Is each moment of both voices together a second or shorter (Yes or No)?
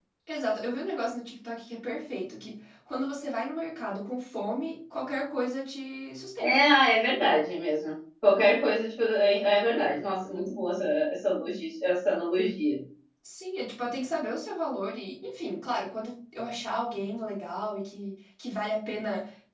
Yes